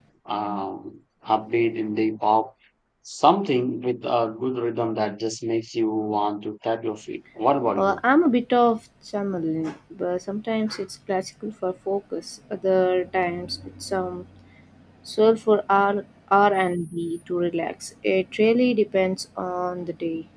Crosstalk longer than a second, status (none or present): none